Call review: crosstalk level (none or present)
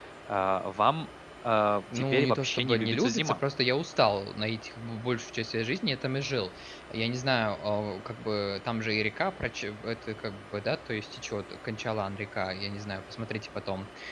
present